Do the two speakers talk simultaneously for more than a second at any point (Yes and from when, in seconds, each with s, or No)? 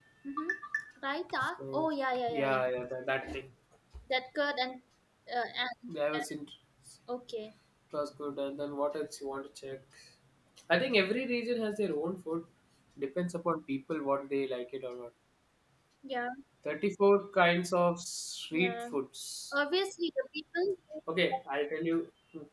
No